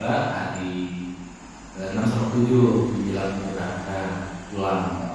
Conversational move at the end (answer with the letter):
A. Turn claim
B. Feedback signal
A